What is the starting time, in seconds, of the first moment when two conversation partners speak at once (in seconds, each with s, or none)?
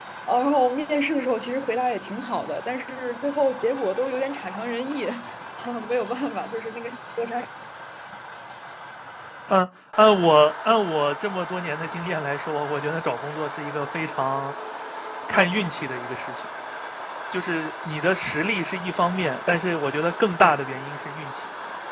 none